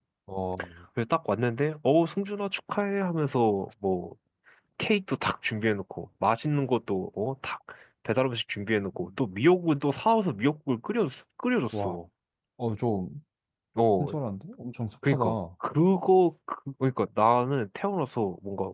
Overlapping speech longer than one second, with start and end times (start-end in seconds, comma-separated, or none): none